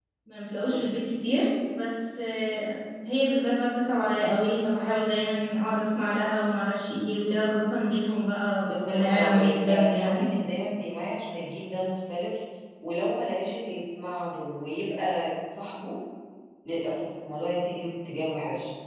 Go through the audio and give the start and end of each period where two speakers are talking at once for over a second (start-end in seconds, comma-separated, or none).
8.7-10.2